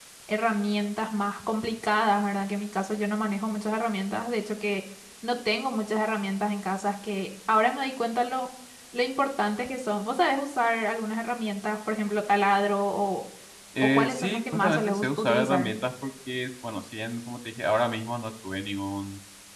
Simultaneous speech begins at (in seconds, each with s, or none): 13.8 s